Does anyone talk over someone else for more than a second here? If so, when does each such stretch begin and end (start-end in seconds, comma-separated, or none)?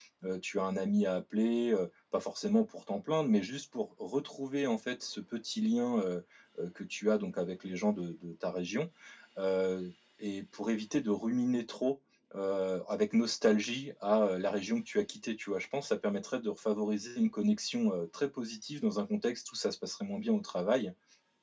none